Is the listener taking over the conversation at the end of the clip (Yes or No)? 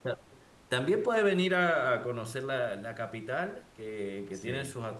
No